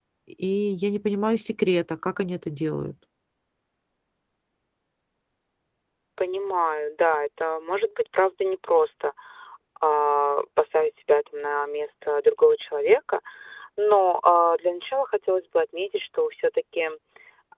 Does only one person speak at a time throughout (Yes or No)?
Yes